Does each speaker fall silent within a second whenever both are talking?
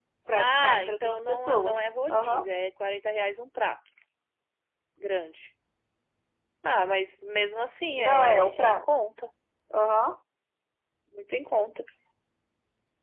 No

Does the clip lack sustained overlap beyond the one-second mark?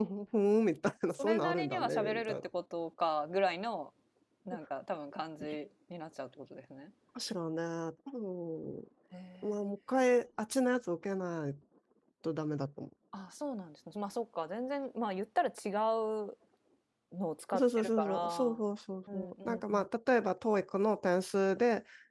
No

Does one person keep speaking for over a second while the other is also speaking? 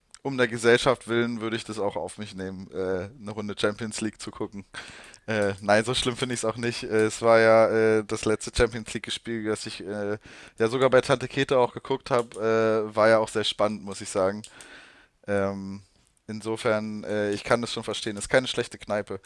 No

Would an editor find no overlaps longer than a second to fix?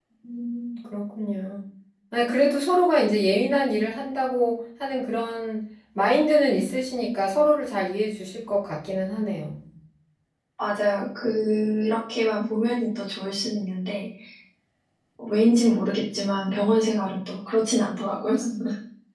Yes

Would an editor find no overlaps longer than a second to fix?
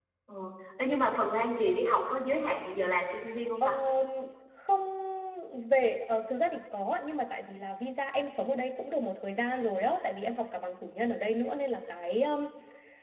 Yes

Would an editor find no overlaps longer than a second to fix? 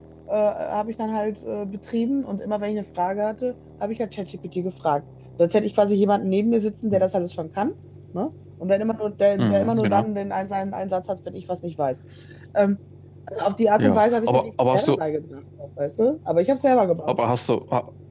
No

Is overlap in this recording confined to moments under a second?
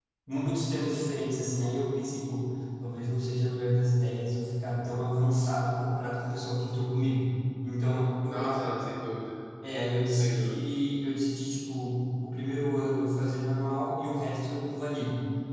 Yes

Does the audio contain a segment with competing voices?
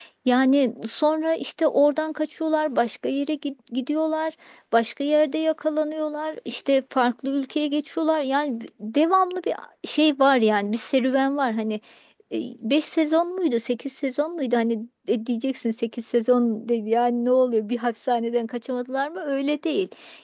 No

